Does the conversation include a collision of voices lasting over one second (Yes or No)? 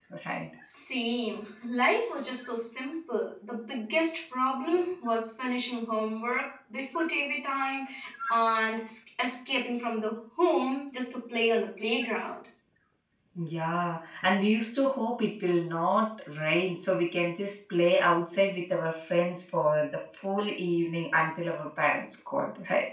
No